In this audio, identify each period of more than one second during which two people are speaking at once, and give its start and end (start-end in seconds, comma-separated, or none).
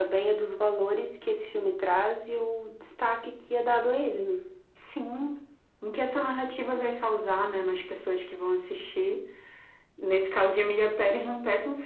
none